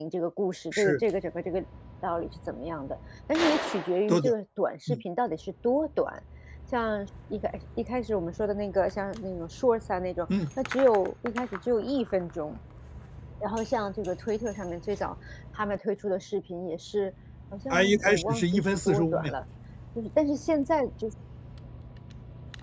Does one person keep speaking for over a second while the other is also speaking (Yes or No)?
Yes